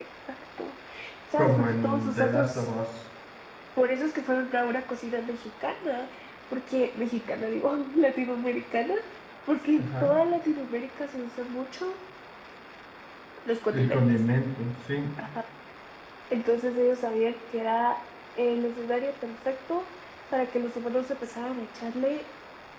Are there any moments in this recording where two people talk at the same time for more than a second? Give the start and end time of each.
1.4-2.7

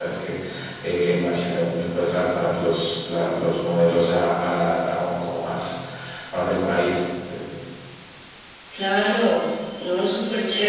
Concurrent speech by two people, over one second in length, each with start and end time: none

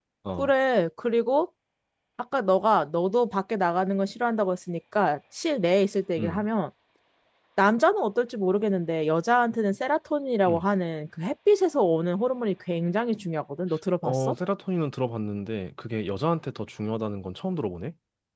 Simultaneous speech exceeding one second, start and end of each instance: none

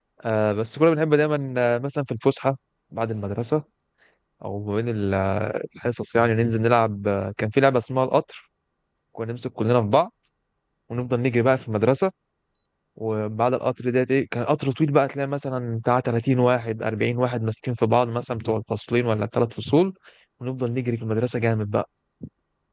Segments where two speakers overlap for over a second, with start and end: none

